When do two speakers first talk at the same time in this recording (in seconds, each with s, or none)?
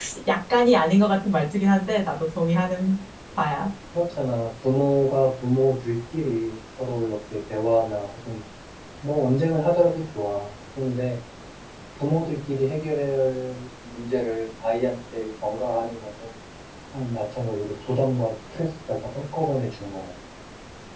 none